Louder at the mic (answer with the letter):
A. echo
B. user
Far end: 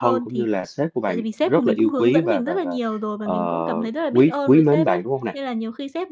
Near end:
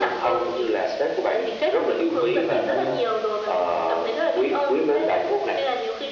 A